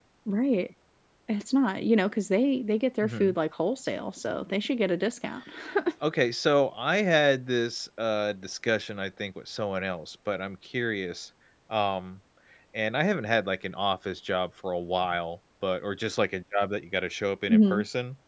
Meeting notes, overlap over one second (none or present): none